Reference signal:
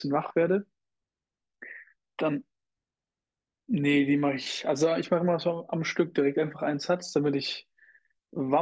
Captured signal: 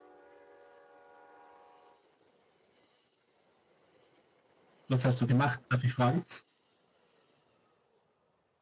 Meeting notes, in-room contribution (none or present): present